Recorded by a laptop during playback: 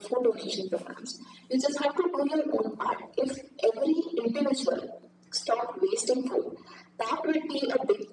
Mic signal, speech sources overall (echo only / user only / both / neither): echo only